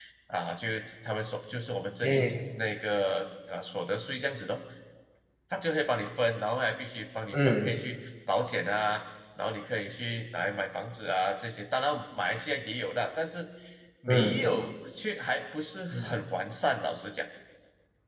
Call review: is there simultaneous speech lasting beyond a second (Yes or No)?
No